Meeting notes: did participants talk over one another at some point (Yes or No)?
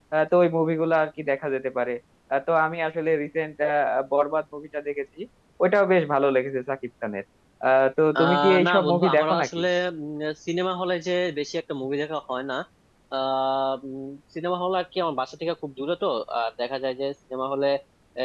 Yes